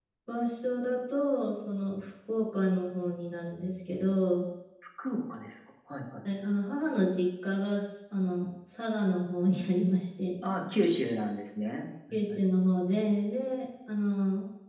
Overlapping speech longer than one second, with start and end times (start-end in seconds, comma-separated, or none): none